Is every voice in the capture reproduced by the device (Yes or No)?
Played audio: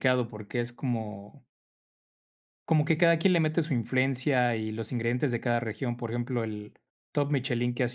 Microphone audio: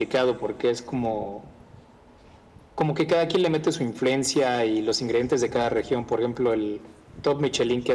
Yes